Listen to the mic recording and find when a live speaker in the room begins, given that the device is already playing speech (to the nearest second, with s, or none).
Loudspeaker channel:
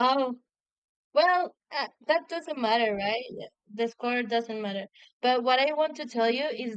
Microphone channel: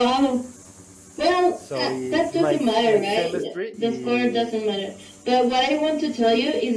2 s